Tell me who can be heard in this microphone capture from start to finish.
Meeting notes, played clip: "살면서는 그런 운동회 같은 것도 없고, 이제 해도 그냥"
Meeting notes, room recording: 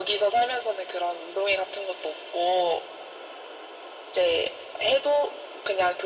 echo only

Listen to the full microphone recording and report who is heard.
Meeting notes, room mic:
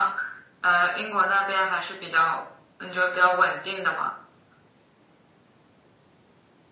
echo only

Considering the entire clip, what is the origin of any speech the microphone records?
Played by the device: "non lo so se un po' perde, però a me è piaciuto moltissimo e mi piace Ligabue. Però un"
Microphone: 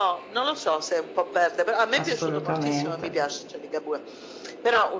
both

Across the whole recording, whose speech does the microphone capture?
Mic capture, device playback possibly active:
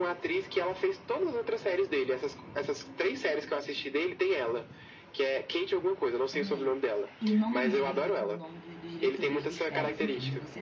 both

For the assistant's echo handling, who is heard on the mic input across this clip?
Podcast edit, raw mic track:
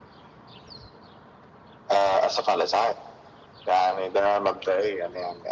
echo only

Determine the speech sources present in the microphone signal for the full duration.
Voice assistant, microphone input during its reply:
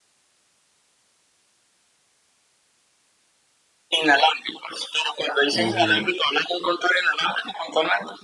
both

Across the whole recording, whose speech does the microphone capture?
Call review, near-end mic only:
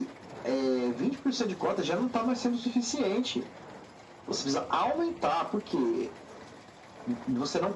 echo only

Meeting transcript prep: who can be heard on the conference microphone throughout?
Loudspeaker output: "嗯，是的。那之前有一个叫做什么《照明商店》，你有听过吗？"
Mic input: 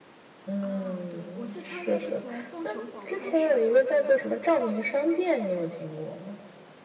both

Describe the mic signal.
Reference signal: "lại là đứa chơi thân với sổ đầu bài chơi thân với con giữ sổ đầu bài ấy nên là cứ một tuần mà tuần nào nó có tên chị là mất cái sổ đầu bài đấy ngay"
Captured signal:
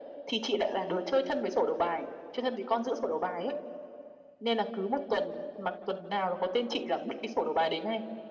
echo only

